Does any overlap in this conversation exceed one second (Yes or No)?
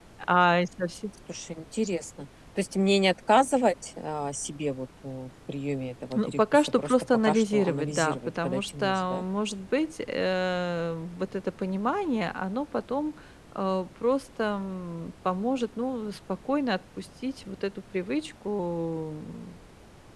Yes